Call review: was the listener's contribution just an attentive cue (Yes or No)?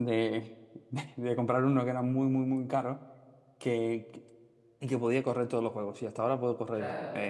Yes